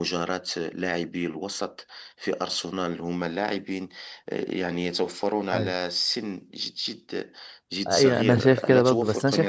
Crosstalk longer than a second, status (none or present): present